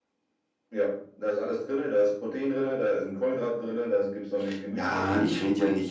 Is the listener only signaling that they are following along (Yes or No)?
No